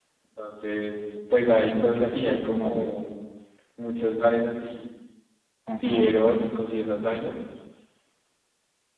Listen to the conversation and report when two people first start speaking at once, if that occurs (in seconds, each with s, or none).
1.6 s